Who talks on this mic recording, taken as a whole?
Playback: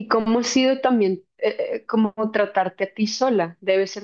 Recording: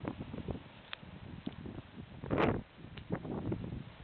neither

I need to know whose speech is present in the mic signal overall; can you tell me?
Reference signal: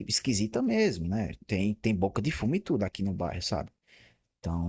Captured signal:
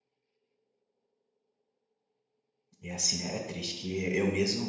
user only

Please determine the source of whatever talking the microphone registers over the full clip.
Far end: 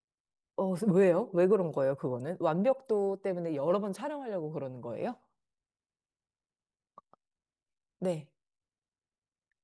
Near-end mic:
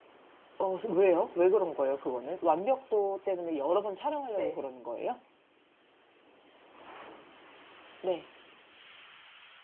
both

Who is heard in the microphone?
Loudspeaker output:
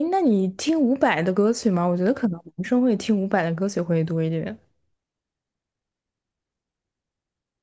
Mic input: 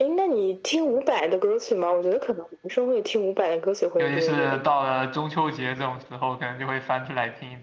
both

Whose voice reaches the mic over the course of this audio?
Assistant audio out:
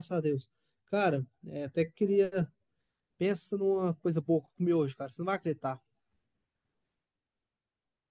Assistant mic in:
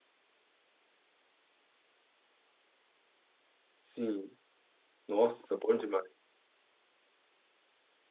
user only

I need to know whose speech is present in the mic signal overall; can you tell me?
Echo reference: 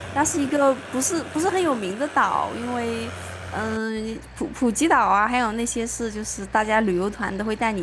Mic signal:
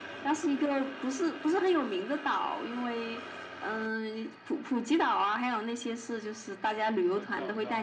both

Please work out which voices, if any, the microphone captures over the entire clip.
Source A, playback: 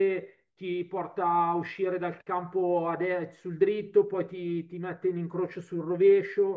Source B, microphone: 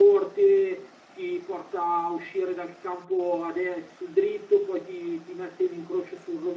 echo only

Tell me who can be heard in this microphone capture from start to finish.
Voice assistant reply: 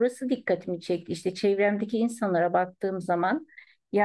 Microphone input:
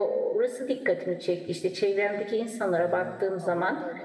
both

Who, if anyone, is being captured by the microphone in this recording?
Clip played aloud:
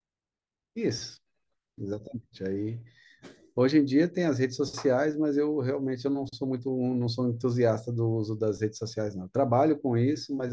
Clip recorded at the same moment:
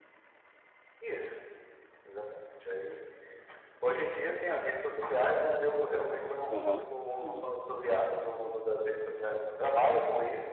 both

